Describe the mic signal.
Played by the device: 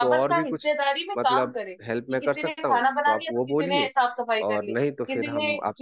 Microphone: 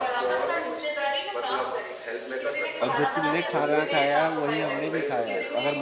both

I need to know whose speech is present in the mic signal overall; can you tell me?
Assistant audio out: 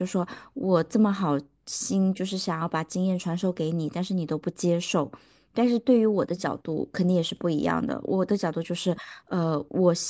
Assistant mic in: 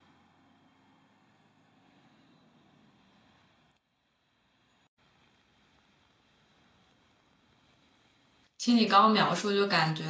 user only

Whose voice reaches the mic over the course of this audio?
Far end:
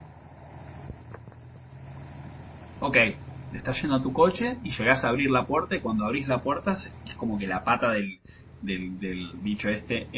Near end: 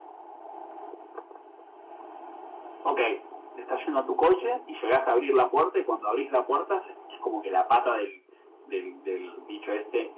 echo only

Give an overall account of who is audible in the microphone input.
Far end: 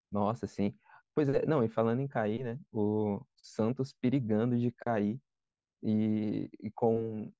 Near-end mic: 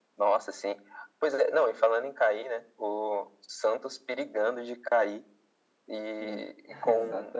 both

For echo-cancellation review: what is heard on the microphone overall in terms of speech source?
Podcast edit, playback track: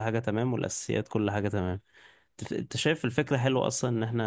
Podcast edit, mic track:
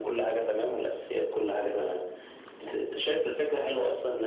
echo only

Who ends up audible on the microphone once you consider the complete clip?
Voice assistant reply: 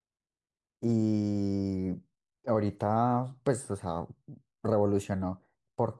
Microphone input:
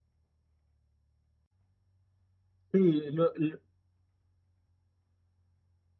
user only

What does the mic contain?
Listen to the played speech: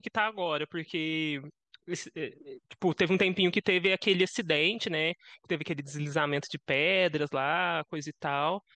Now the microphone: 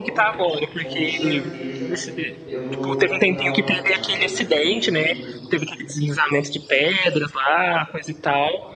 both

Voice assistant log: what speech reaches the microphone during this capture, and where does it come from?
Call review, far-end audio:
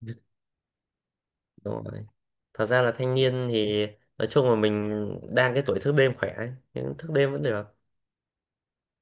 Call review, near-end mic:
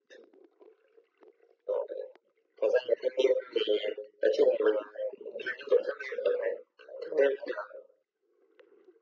echo only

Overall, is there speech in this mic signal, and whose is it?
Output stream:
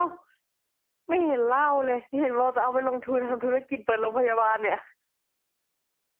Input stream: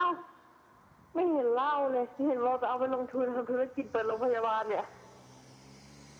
echo only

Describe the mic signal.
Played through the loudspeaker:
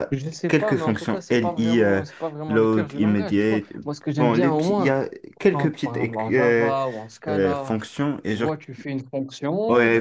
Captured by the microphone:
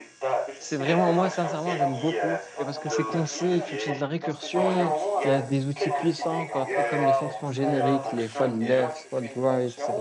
both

